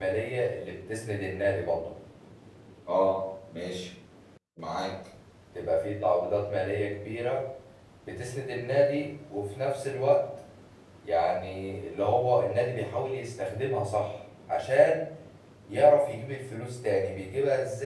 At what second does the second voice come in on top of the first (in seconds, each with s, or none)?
none